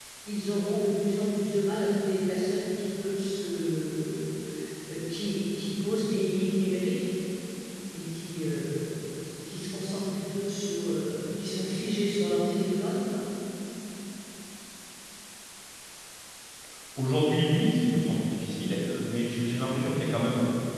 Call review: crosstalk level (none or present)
none